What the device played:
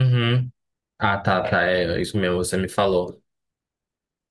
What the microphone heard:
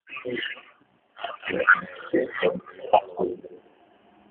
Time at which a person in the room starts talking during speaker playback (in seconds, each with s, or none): none